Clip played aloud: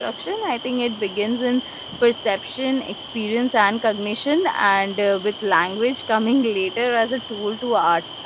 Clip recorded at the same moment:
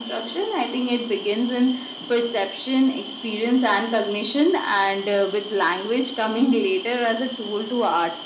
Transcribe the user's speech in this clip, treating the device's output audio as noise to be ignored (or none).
none